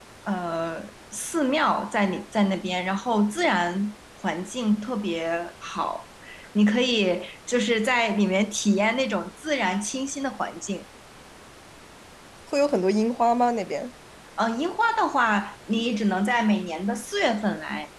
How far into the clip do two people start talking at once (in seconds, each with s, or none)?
none